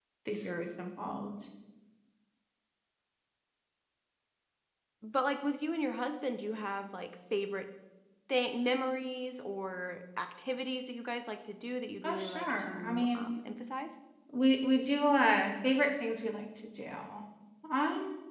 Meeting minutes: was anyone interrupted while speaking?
Yes, from 12.0 s

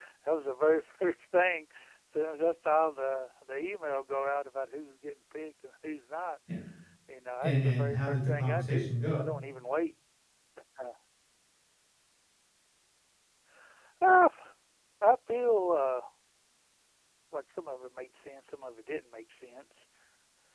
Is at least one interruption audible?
Yes, from 7.4 s

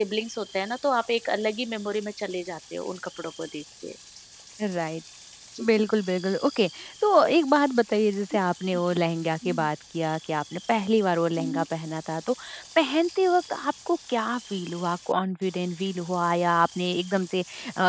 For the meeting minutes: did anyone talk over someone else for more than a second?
No

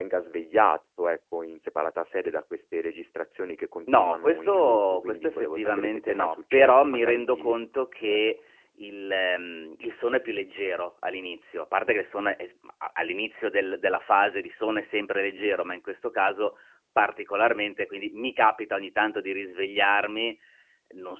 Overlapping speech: Yes, from 3.9 s

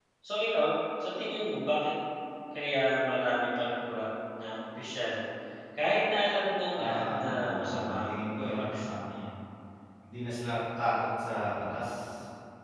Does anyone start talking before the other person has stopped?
Yes, from 6.7 s

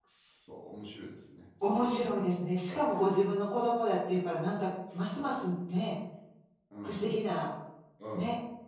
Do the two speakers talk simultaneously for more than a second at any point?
No

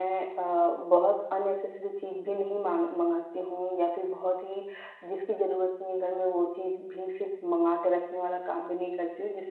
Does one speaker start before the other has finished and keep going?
No

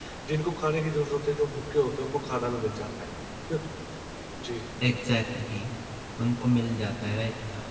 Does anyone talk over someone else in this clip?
No

